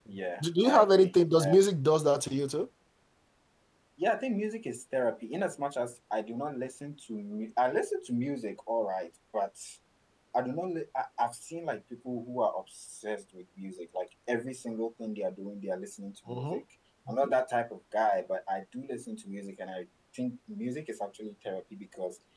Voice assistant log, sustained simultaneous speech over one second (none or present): present